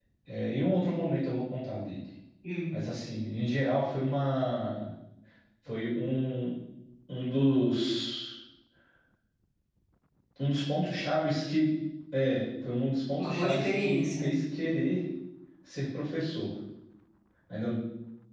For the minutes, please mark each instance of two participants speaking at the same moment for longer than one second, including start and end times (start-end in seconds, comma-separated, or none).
13.2-14.4